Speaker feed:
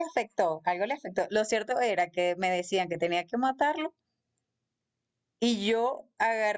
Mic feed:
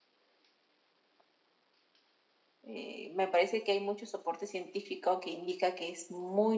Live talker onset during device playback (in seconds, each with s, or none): 2.6 s